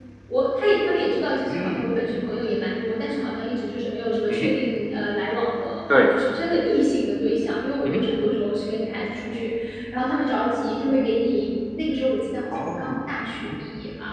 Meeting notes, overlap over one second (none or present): none